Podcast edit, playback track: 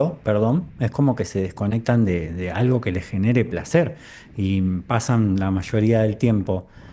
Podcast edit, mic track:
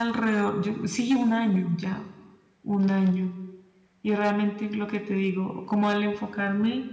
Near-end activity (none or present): present